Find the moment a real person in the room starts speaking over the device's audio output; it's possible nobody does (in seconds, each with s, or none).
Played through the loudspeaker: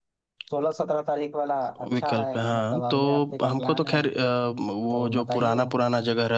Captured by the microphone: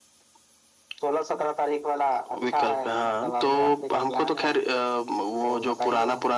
none